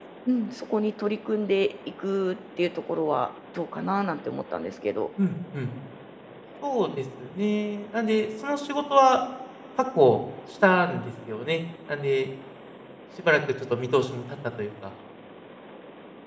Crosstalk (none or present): none